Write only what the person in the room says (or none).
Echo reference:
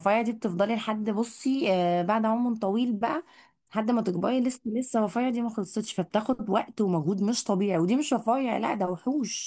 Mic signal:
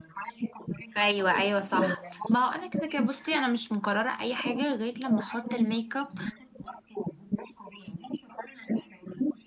ايوه ايوه صح ما هو انا كده كده بصي انا مش مقرره اي حاجه غير لما احط الميك اب